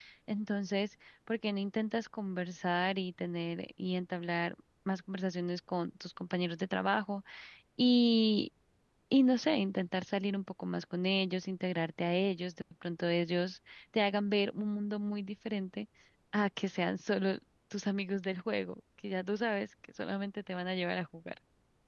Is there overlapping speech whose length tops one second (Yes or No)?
No